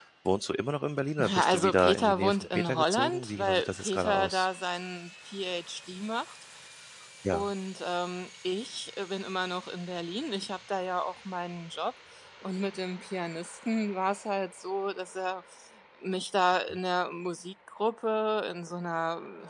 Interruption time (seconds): 1.2 s

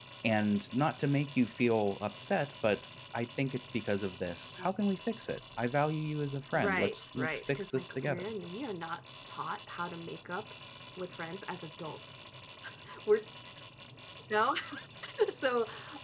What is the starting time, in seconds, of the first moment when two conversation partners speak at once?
6.5 s

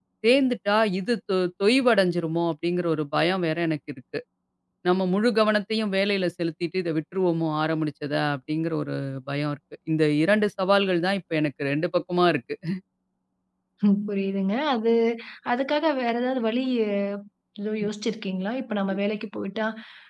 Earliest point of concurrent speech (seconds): none

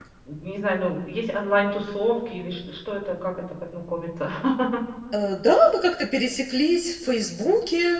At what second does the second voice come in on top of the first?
none

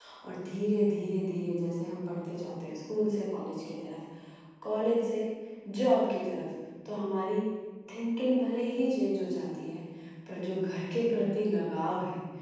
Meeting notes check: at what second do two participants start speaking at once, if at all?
none

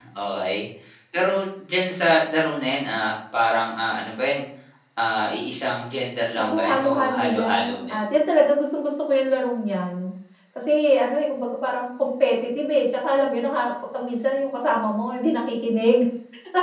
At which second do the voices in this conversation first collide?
6.3 s

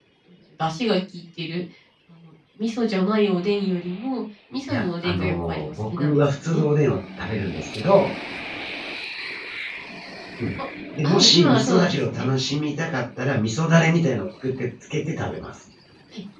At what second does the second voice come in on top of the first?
4.7 s

